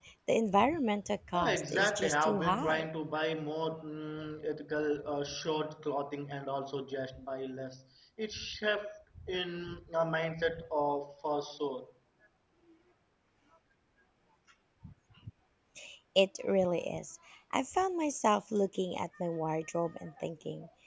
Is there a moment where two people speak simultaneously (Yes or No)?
Yes